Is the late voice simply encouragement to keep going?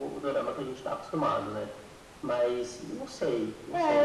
No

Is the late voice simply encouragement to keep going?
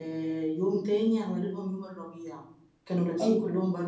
Yes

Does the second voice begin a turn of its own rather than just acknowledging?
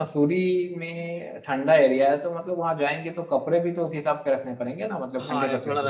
Yes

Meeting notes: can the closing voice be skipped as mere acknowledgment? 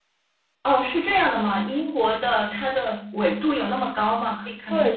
No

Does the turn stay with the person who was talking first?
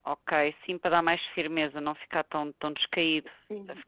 No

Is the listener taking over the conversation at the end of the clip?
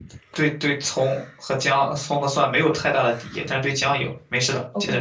Yes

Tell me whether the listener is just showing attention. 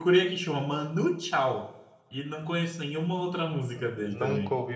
No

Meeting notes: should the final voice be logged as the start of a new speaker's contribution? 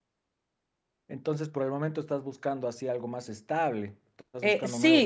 Yes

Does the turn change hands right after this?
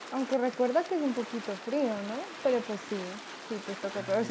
No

